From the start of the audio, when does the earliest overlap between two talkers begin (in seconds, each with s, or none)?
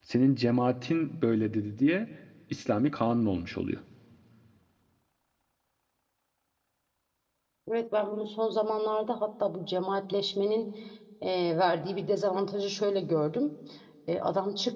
none